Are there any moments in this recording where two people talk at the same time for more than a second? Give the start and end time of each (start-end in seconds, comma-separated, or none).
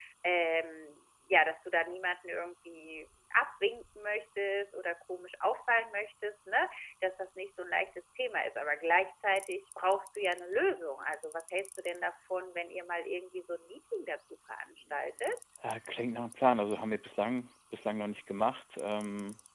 none